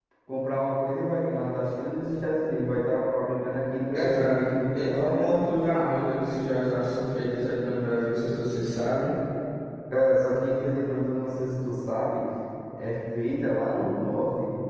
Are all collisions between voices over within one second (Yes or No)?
No